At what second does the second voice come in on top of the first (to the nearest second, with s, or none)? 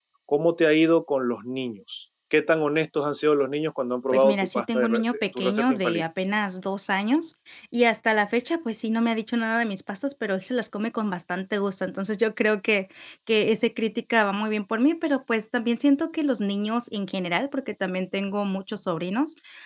4 s